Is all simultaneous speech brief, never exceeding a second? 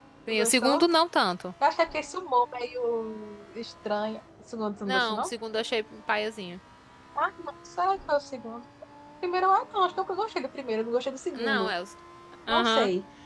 Yes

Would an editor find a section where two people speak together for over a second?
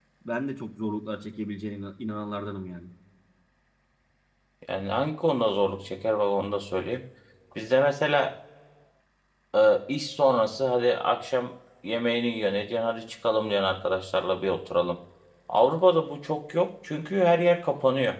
No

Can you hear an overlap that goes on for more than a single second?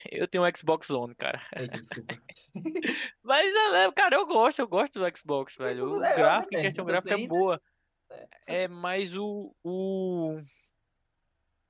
Yes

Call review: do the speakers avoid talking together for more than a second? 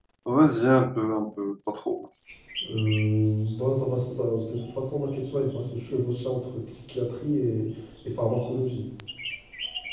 Yes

